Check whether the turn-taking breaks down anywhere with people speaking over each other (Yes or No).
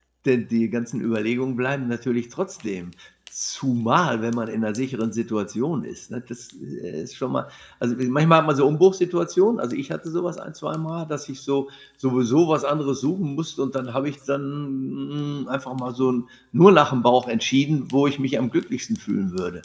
No